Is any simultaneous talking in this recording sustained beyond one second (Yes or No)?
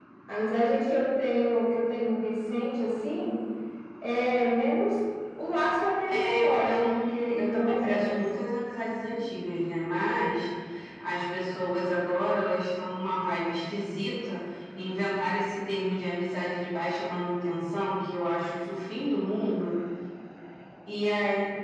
Yes